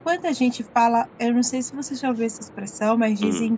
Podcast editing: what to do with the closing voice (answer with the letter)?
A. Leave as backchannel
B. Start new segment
A